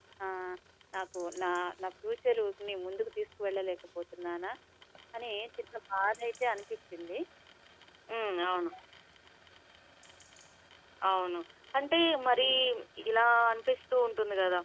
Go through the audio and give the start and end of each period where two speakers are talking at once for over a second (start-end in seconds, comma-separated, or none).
none